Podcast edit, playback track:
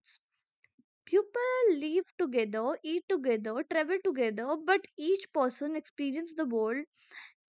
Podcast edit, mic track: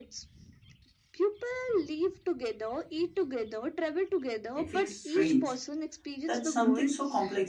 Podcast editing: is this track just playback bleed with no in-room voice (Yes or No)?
No